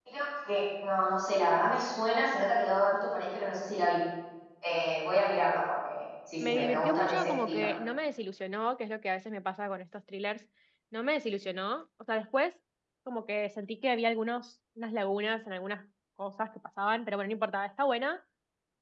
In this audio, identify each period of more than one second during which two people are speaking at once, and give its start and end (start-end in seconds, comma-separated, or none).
6.4-7.7